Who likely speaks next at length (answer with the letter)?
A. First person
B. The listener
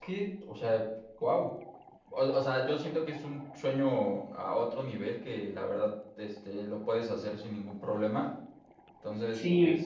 A